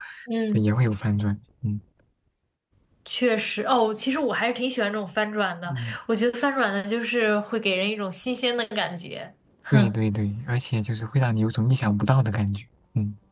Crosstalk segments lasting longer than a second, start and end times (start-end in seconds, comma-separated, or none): none